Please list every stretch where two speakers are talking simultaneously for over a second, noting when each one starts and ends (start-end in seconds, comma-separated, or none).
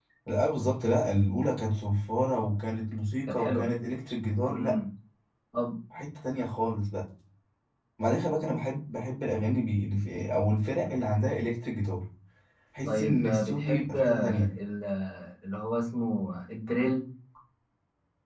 12.8-14.5